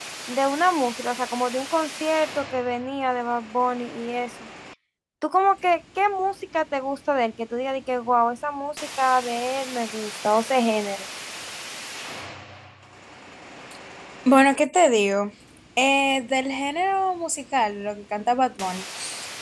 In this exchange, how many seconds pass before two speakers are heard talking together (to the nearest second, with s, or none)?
none